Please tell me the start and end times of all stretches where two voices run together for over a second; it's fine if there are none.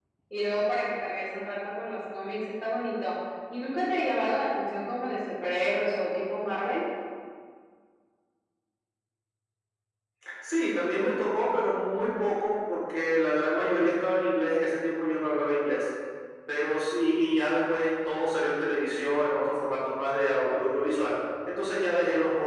none

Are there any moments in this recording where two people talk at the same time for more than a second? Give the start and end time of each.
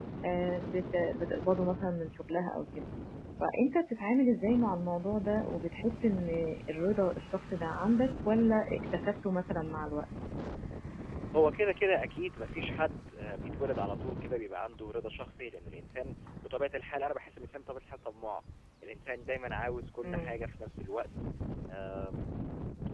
none

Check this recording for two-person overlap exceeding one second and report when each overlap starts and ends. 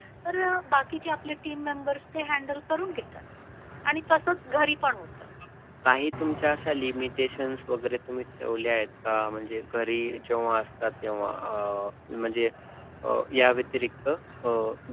none

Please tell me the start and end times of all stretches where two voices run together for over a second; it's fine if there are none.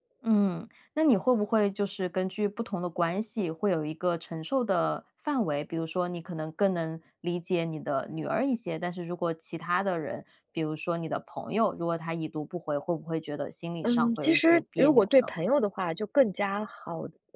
13.8-15.3

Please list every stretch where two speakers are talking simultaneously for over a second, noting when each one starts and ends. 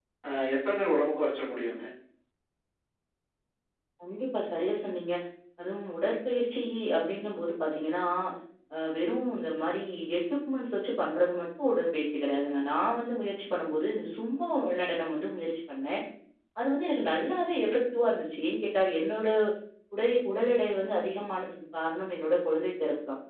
none

